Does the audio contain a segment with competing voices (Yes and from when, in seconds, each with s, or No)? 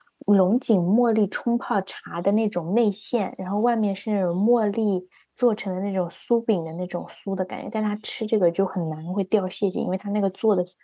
No